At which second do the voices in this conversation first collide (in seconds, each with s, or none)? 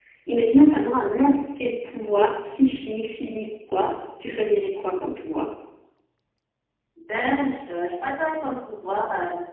none